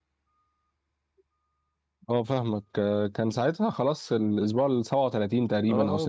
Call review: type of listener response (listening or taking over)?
taking over